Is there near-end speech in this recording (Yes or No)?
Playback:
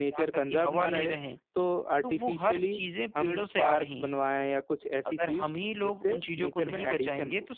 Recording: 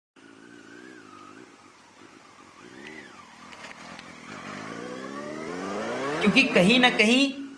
Yes